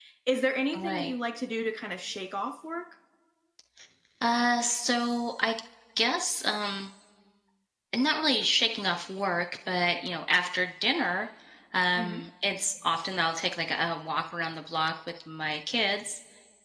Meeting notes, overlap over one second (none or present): none